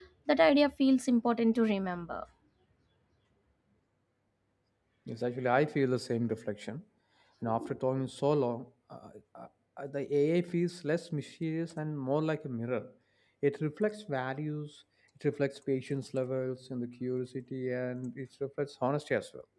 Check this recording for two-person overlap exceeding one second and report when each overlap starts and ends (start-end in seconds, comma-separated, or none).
none